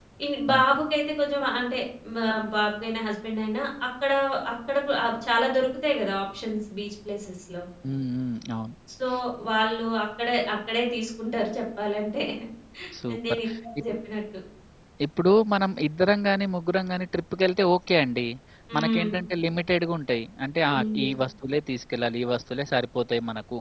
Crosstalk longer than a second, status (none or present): none